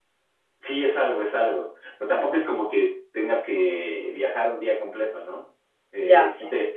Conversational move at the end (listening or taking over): listening